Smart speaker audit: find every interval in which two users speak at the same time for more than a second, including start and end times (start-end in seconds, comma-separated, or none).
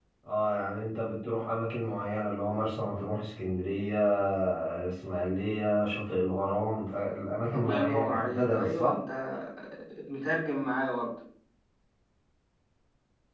7.5-9.0